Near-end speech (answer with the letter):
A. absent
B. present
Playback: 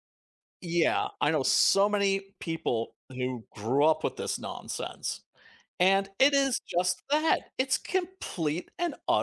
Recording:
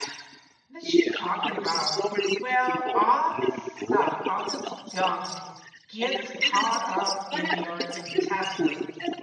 B